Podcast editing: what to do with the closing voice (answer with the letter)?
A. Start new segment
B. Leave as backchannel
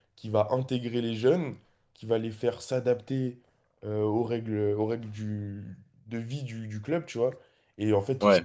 B